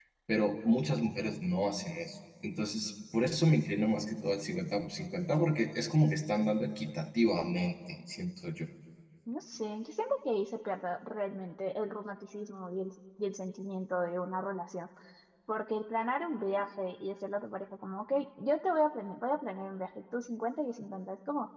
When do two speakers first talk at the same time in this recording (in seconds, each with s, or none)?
none